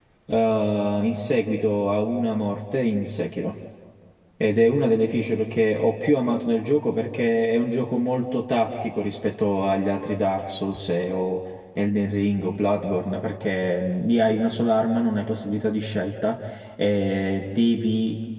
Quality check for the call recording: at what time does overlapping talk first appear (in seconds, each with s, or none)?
none